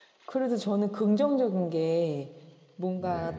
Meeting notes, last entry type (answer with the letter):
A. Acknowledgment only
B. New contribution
A